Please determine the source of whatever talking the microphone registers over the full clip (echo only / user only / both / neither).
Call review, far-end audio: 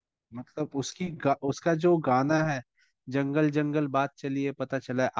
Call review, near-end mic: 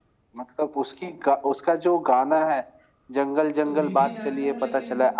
both